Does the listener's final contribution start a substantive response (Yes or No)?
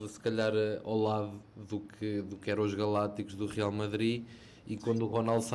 No